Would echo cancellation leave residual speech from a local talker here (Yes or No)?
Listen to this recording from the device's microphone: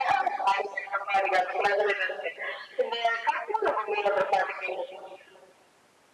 No